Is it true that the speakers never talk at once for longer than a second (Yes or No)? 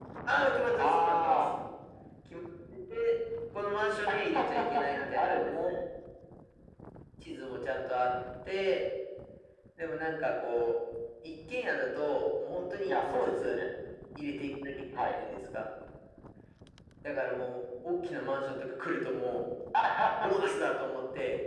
No